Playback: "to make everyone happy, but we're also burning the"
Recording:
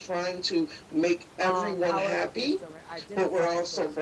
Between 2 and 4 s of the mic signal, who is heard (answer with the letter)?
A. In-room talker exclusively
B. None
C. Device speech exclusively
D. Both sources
D